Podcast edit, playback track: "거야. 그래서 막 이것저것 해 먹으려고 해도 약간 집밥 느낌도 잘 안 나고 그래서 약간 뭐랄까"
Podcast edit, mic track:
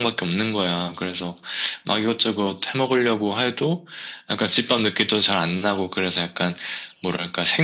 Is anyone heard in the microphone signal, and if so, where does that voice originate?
echo only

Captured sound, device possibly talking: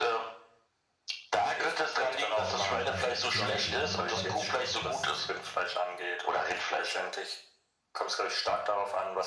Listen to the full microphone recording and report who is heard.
both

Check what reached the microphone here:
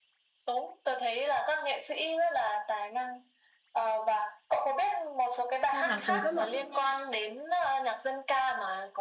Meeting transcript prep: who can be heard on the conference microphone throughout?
both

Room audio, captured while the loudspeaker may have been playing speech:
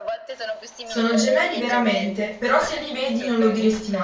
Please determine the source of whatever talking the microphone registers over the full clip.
both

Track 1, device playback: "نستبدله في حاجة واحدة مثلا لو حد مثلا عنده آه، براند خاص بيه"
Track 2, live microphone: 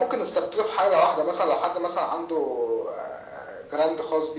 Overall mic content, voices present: echo only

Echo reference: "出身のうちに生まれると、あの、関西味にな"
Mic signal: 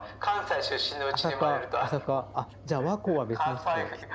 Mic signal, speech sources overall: both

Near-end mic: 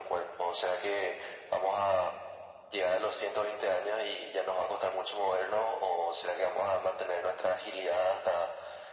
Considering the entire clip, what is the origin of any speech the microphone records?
echo only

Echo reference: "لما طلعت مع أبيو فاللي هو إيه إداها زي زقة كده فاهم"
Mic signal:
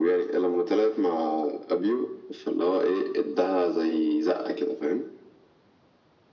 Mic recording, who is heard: echo only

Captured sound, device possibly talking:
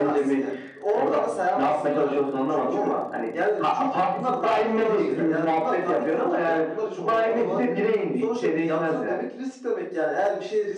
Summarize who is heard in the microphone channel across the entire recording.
echo only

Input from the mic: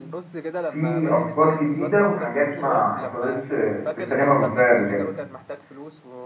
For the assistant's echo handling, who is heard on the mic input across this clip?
both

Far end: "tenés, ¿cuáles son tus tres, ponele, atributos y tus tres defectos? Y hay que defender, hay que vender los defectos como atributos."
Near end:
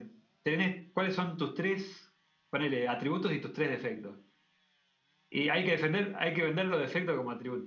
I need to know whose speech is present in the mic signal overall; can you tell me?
echo only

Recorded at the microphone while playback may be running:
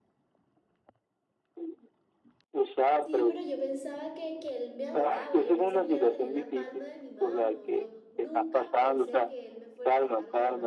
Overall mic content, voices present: both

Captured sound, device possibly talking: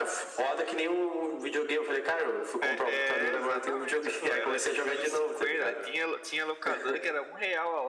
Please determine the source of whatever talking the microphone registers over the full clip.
both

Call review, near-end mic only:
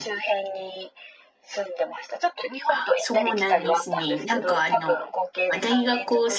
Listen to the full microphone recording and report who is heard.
both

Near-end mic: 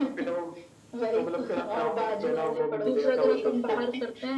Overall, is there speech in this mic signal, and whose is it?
both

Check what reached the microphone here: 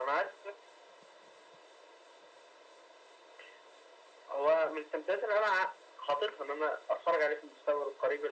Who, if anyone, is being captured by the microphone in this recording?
echo only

